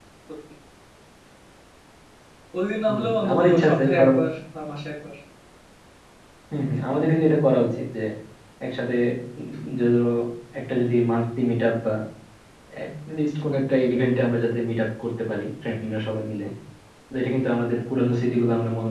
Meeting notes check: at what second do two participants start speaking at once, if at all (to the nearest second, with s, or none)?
3 s